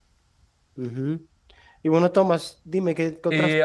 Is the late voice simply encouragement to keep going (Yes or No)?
Yes